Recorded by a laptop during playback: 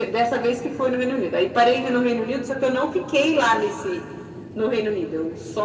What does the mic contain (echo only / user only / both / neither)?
echo only